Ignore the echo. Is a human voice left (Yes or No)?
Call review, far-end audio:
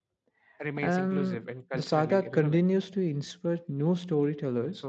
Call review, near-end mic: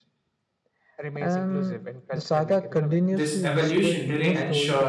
Yes